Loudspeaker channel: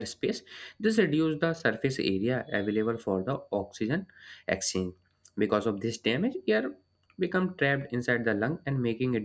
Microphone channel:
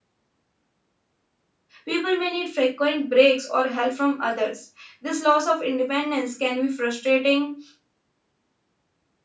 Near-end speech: present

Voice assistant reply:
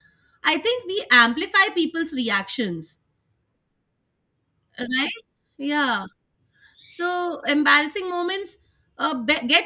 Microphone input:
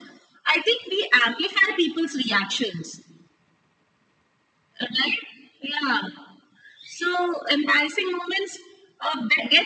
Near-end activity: none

